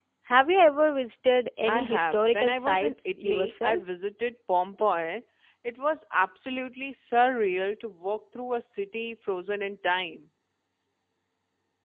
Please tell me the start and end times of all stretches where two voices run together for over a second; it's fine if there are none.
1.6-3.8

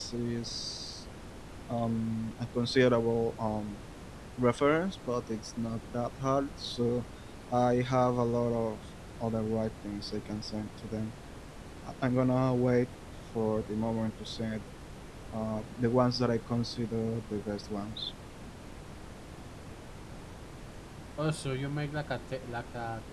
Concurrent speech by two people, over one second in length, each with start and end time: none

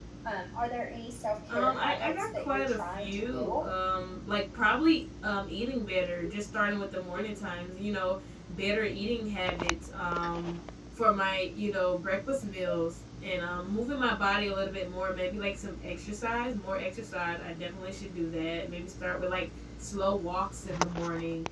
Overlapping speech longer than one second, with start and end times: 1.5-3.7

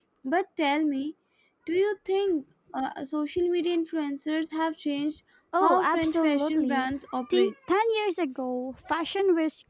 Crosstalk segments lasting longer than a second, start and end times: 5.6-6.9

